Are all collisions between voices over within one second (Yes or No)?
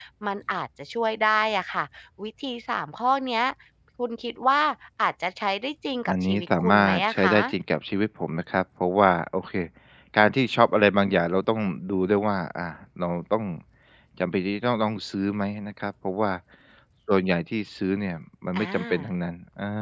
No